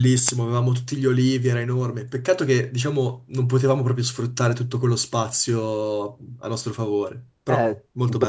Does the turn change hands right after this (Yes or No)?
Yes